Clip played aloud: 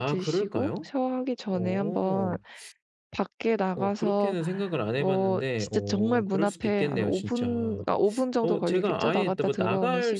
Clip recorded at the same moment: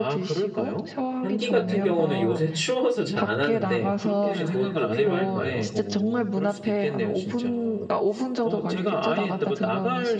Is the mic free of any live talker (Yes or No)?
No